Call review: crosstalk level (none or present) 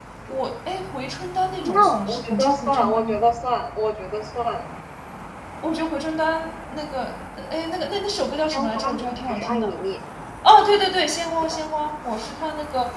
present